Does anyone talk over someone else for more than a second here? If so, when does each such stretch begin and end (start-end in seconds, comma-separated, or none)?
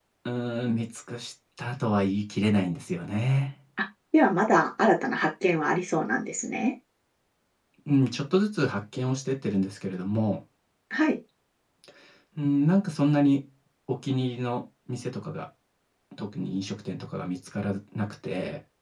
none